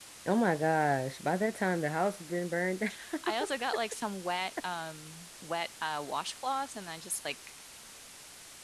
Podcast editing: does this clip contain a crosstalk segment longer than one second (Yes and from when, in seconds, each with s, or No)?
No